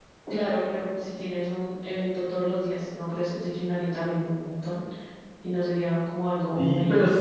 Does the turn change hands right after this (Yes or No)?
Yes